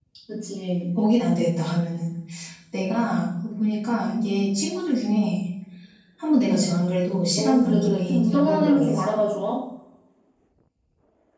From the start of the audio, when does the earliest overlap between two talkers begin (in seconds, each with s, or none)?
7.4 s